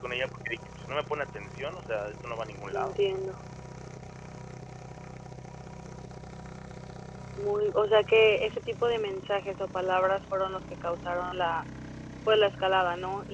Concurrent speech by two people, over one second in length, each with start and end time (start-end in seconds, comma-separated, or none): none